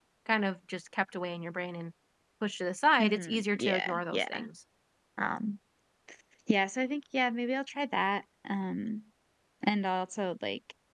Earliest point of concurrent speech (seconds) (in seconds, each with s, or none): 3.0 s